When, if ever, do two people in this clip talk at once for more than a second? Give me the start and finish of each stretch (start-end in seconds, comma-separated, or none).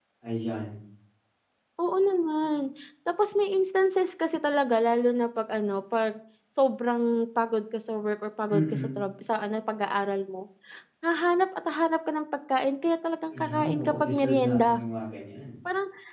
13.3-14.8